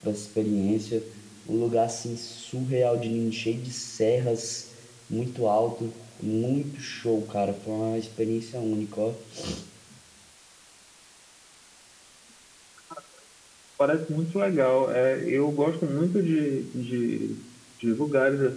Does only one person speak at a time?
Yes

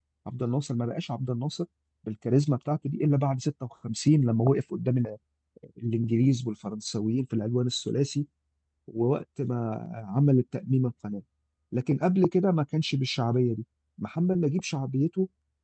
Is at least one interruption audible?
No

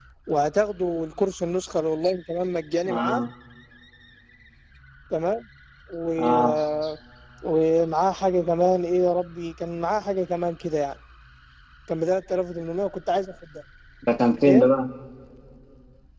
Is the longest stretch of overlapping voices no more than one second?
Yes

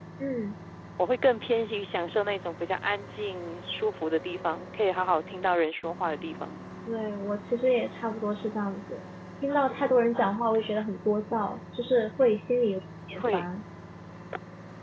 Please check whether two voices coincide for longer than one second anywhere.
No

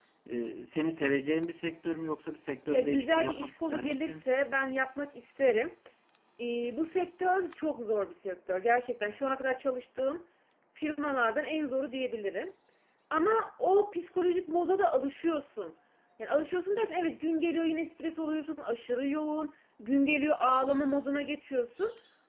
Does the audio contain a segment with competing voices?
Yes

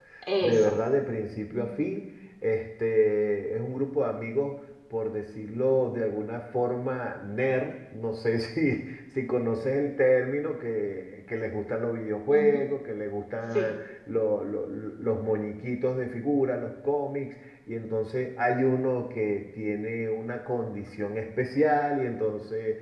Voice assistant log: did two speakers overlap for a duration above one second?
No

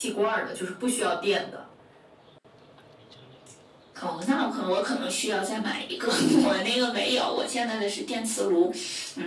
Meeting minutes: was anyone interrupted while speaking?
No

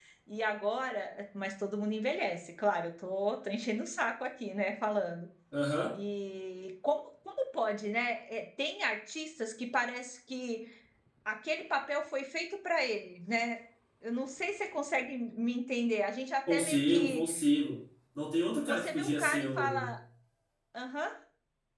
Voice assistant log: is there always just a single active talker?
No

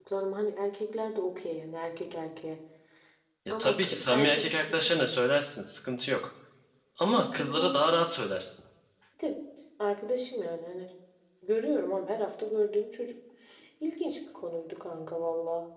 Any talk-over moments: Yes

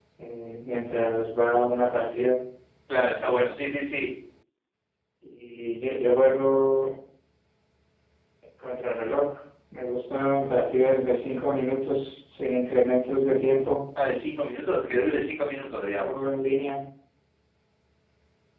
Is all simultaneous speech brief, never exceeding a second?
Yes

